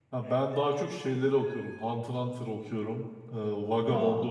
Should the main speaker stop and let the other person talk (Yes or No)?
No